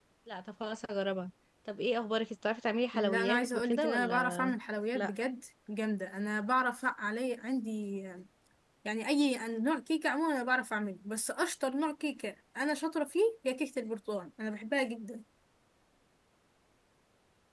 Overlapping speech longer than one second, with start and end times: 2.9-4.5

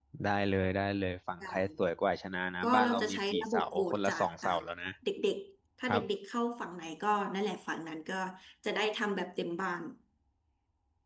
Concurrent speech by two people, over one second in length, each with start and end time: 2.6-4.5

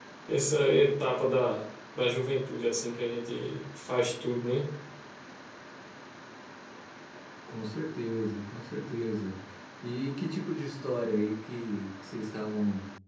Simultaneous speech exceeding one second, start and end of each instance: none

